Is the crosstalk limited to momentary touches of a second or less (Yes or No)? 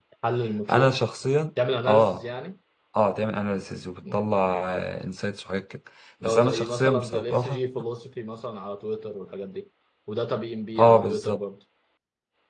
No